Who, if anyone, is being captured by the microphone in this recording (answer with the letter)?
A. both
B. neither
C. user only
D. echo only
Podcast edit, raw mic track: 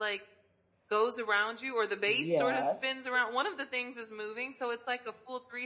A